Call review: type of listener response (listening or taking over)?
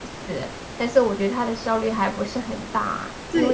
taking over